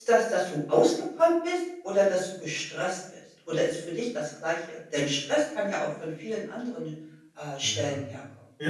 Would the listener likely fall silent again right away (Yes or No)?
No